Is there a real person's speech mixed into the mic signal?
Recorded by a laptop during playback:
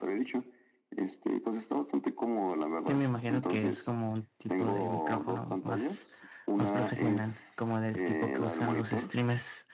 Yes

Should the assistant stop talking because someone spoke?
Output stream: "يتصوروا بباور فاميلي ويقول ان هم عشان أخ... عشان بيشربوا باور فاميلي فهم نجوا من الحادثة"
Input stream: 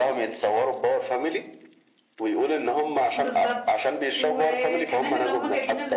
Yes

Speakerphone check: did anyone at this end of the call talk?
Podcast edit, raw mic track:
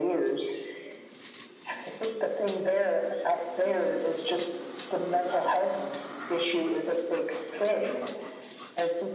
No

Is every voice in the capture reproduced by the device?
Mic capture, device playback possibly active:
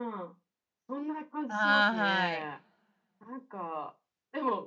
No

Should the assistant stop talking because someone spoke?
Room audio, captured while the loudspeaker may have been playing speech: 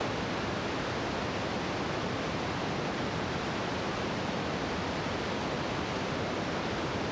No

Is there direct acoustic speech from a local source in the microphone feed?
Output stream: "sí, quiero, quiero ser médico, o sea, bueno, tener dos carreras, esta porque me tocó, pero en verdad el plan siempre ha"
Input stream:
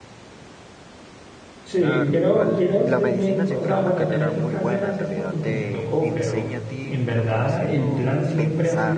Yes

